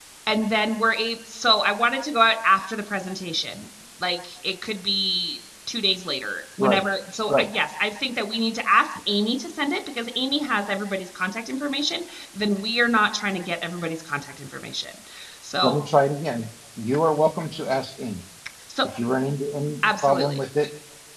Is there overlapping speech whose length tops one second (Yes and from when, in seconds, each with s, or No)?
No